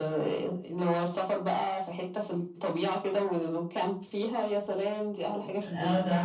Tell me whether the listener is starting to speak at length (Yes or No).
Yes